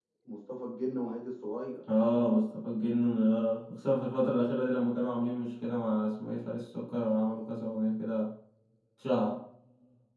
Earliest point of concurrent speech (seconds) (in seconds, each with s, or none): none